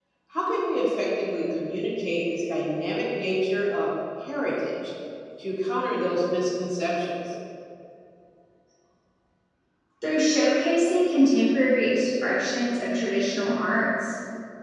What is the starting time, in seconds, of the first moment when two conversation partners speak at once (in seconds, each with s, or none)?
none